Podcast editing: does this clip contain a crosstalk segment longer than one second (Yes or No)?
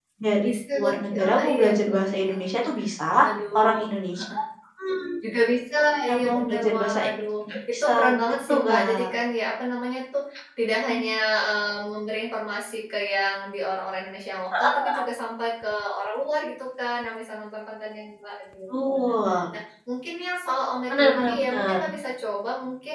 Yes